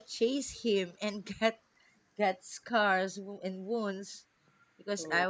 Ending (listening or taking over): listening